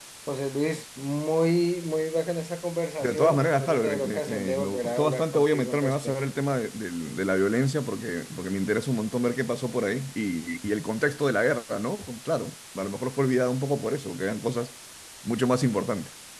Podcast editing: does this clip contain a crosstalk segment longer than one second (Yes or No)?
Yes